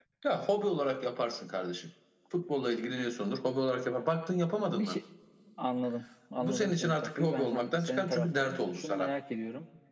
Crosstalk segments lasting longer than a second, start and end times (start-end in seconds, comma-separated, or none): 6.4-9.1